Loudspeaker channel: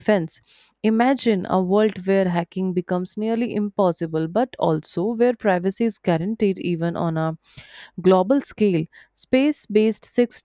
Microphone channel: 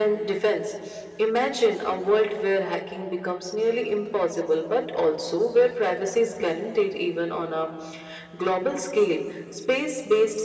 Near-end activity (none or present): none